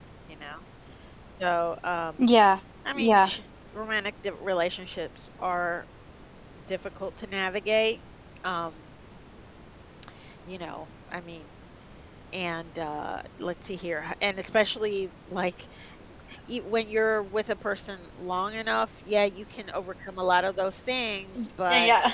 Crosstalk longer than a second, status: none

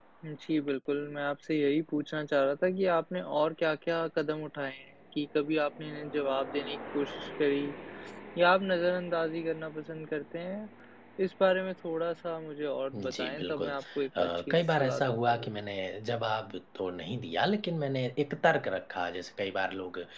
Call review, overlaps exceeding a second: present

